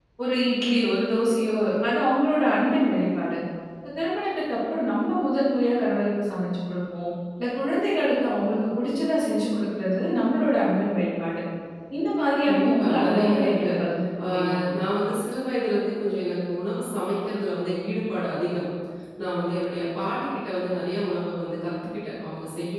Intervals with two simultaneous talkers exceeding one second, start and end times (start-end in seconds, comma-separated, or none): 12.4-13.7